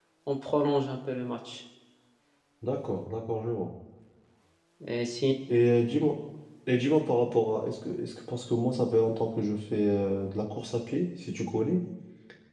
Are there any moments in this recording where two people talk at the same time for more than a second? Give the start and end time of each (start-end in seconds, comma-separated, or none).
none